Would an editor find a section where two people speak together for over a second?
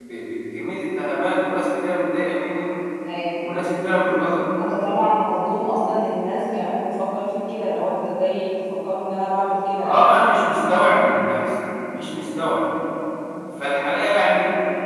No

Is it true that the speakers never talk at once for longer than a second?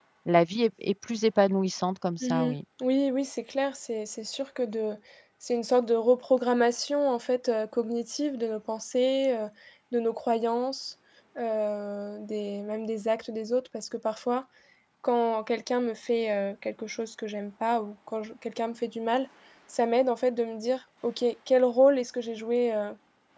Yes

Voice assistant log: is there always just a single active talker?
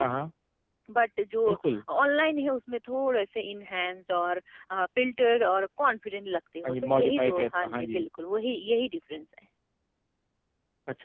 No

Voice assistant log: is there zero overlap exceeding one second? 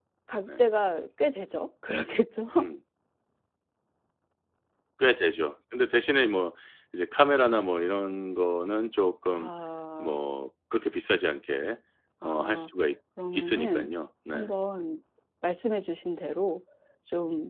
Yes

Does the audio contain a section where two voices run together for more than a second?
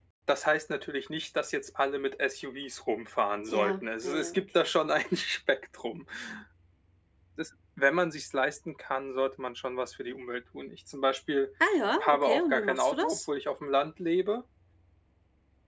Yes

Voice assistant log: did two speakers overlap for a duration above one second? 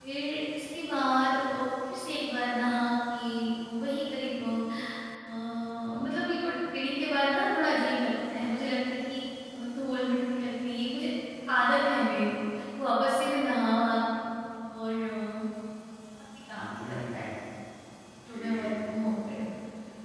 Yes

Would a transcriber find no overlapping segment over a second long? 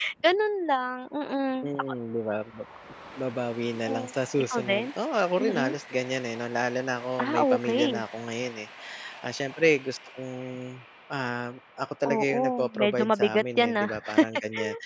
No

